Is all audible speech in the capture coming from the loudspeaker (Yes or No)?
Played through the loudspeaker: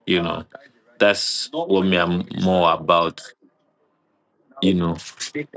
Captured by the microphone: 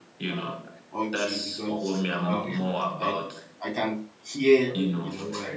No